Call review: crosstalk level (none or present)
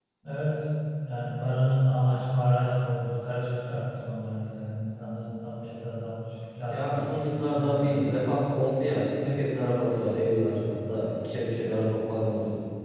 present